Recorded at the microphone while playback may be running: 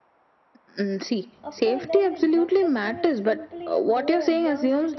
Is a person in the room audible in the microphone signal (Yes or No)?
Yes